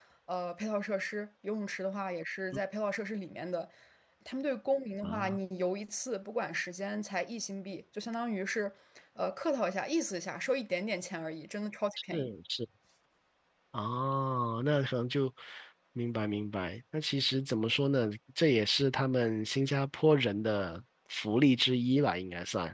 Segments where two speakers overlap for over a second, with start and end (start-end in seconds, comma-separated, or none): none